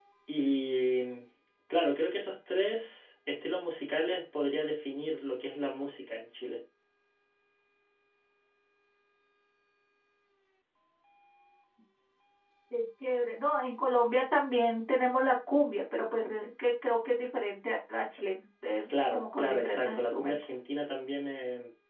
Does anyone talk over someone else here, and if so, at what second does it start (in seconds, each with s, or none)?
18.9 s